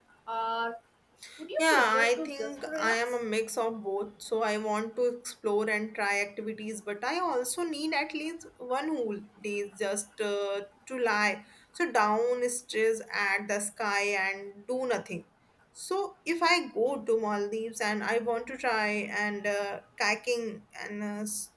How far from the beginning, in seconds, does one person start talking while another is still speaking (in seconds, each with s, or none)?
1.6 s